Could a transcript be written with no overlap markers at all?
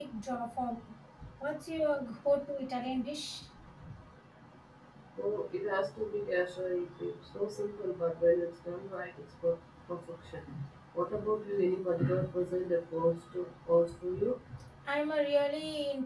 Yes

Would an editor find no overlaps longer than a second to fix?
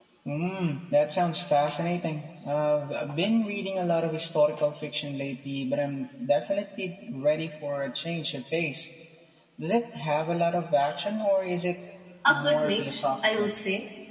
No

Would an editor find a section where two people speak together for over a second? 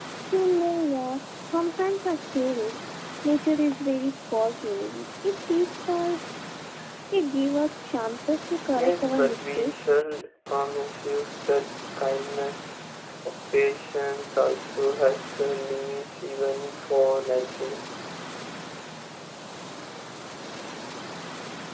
Yes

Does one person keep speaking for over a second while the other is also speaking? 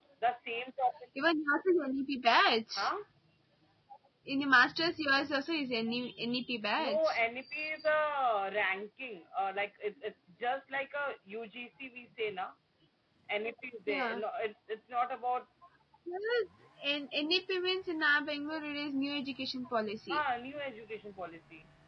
No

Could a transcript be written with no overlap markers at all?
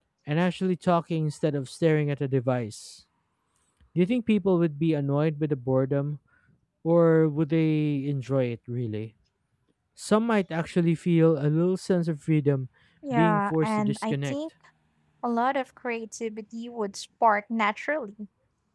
No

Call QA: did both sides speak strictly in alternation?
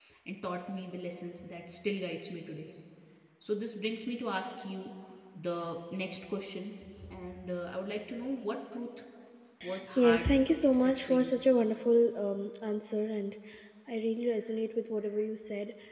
No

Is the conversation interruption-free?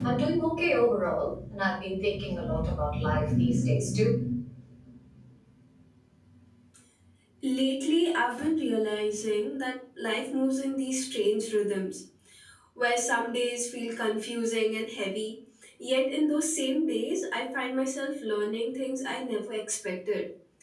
Yes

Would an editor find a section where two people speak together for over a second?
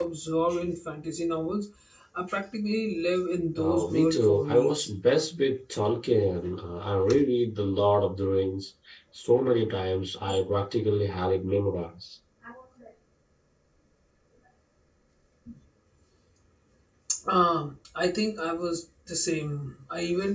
Yes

